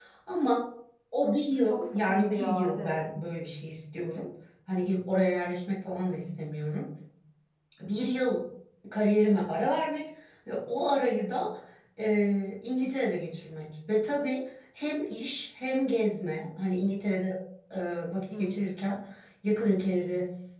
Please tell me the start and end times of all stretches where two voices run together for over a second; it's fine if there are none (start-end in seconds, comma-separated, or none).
1.6-2.9